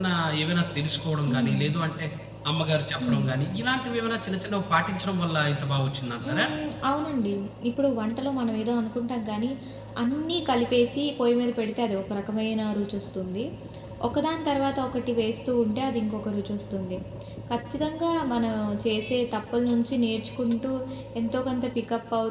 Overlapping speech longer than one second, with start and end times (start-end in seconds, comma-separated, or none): none